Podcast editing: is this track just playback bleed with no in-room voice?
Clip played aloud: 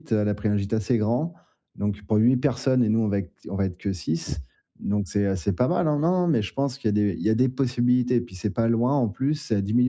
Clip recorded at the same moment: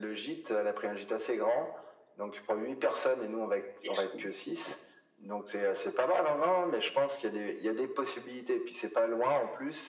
No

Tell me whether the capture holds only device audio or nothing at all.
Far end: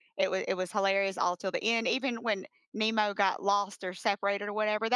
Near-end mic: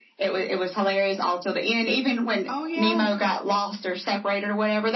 No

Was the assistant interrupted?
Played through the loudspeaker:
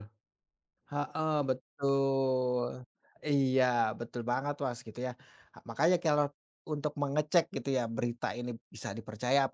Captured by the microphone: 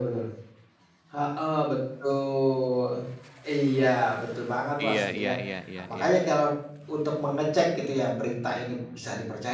Yes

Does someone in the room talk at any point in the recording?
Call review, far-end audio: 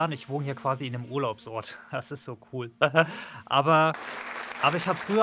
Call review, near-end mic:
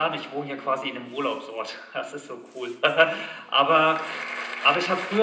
No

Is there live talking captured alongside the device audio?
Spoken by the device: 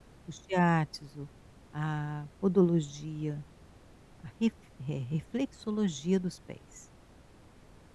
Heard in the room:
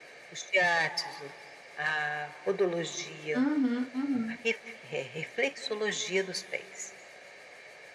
Yes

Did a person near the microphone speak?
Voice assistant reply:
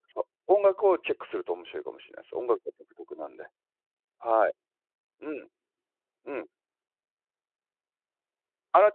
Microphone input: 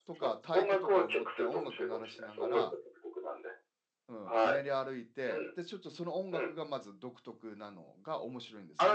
Yes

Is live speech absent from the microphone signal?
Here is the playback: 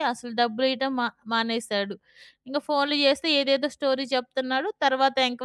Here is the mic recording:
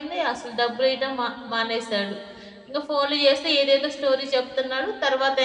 Yes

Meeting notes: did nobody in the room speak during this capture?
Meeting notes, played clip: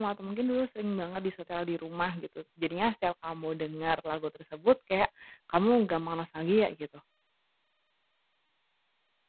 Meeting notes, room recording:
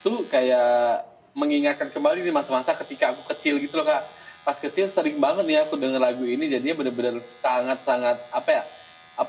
No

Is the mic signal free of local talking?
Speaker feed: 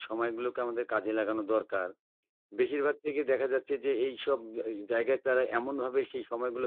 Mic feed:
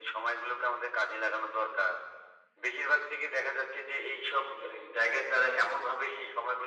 Yes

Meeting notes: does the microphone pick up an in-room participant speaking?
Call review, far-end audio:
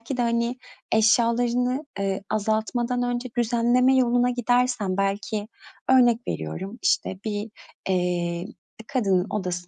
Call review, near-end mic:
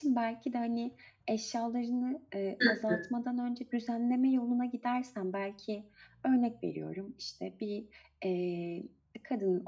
Yes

